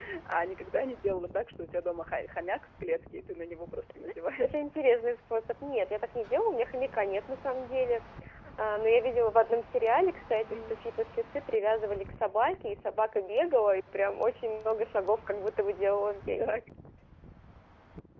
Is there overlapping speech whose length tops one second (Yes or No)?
No